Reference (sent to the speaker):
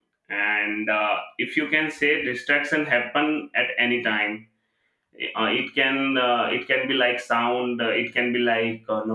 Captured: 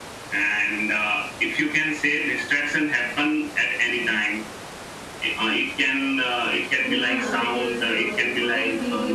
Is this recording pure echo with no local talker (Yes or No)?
No